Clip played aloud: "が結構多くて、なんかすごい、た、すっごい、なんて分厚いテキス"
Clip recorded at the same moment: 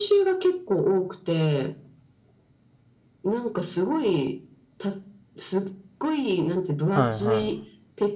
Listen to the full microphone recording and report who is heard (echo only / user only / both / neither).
both